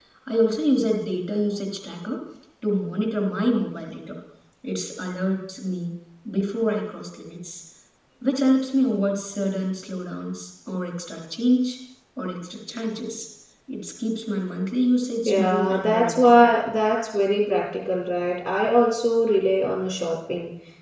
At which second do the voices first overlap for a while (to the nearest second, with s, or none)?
15 s